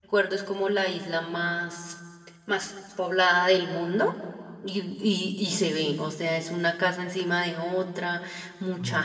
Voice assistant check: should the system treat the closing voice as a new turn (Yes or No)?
No